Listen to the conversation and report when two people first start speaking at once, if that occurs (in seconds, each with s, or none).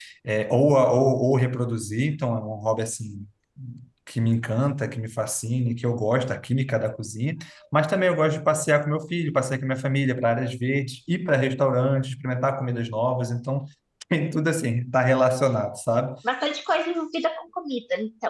none